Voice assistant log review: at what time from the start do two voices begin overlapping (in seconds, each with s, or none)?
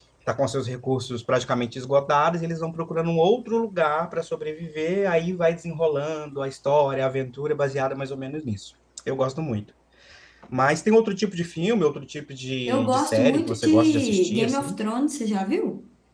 12.7 s